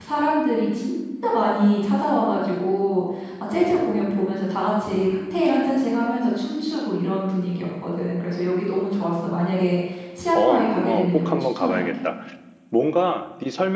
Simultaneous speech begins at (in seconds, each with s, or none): 10.3 s